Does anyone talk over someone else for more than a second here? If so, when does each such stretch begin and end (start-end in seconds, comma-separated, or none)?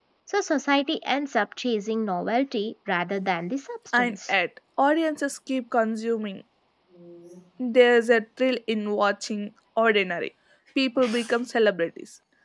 none